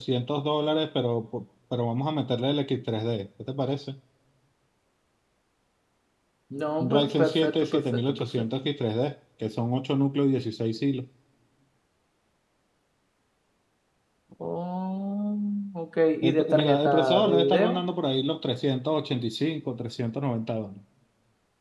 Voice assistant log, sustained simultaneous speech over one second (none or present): present